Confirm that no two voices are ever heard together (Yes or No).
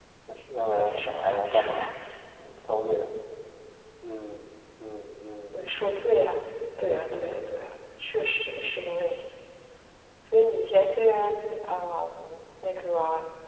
No